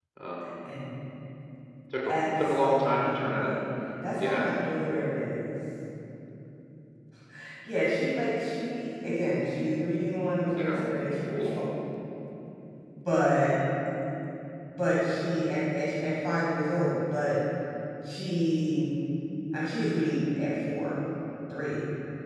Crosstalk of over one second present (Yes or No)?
Yes